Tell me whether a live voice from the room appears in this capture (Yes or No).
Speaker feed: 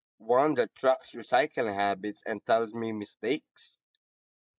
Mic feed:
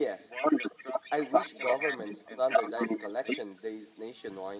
Yes